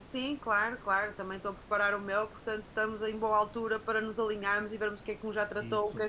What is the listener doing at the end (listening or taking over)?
listening